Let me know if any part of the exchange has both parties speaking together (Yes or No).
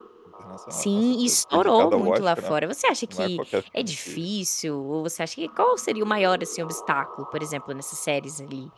Yes